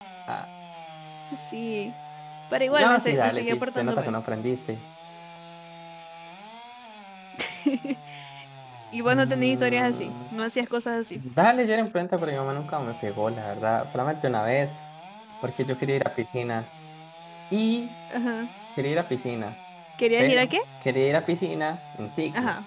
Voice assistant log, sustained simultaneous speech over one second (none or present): present